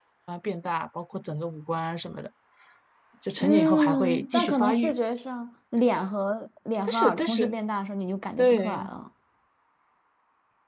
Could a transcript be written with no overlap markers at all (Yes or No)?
No